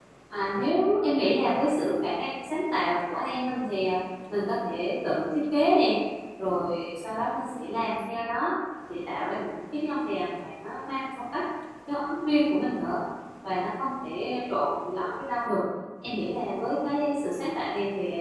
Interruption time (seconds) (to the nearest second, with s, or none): none